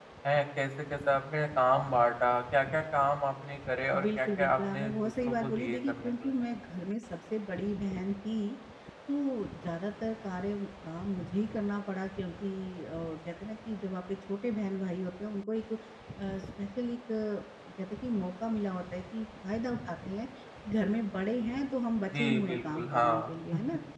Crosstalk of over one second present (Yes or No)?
Yes